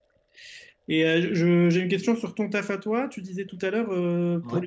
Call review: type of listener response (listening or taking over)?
listening